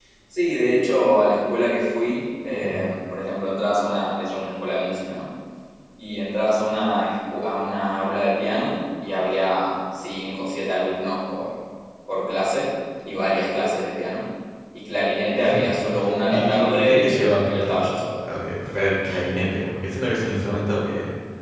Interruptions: present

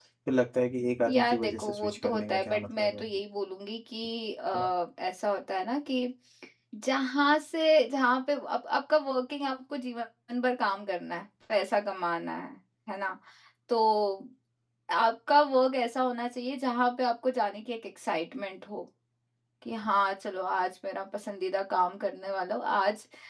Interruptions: present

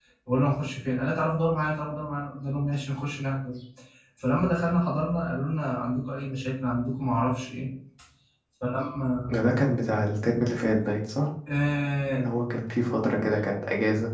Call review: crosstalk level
none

